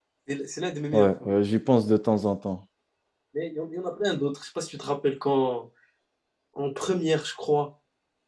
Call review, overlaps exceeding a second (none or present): none